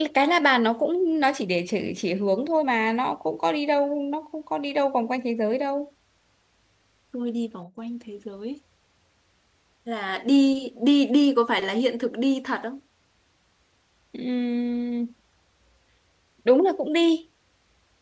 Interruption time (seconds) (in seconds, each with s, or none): none